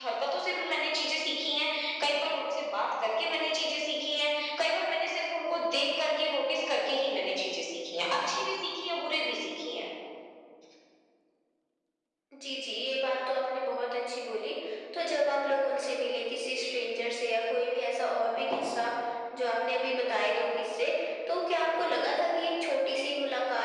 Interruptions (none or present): none